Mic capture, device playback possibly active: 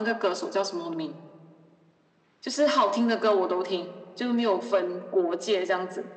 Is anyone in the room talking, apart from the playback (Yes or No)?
No